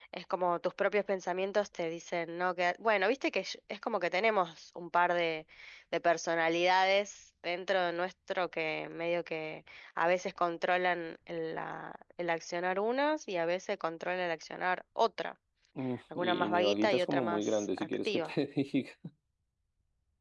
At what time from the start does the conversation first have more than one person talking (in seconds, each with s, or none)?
16.1 s